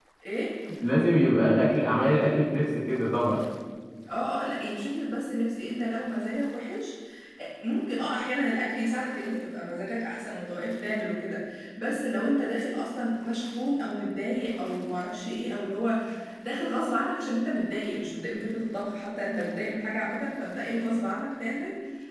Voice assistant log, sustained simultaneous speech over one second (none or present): none